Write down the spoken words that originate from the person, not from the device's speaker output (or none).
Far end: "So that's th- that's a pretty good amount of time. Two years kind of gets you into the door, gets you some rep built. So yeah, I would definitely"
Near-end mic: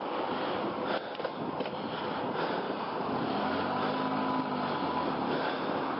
none